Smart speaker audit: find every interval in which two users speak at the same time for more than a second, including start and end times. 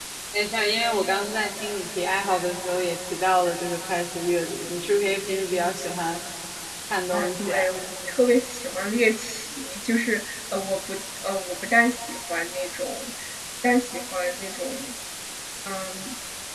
none

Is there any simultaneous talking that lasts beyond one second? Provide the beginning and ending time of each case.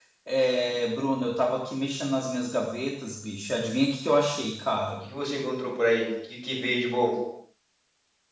none

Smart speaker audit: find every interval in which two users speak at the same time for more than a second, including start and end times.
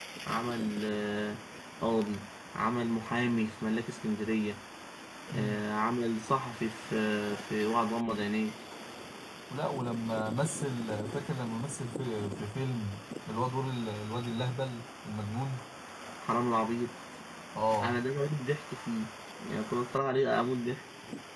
none

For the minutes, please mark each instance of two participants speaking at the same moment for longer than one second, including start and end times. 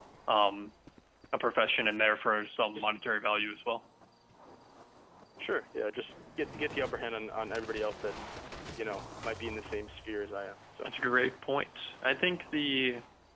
none

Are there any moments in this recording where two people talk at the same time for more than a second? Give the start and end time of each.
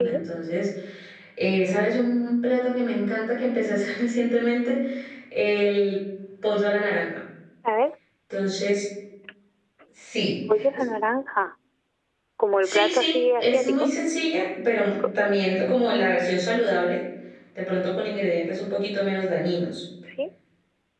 12.6-13.9

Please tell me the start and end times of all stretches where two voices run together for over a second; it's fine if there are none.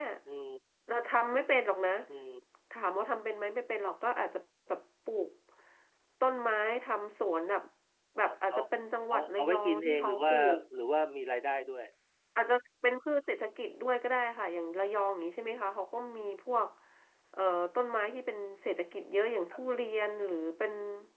9.1-10.3

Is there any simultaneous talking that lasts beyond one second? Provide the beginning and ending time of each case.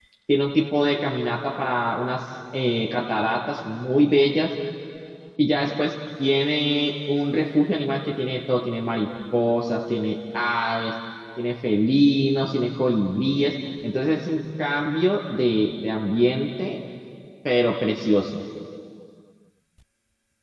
none

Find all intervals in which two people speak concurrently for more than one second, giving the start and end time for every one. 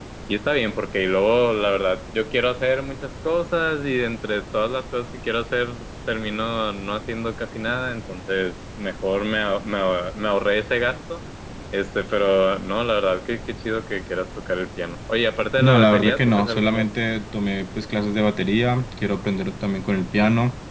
15.6-16.9

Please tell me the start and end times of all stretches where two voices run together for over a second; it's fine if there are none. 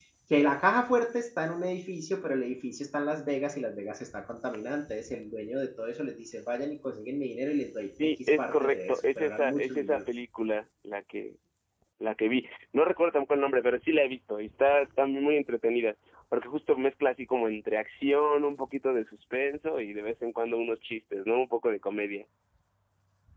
8.0-10.0

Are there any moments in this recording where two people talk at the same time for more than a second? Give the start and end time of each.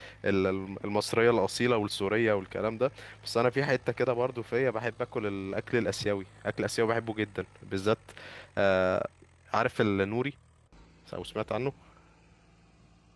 none

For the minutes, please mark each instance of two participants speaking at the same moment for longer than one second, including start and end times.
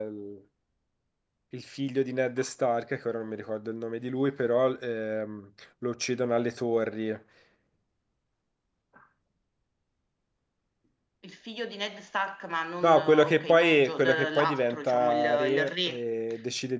12.8-16.0

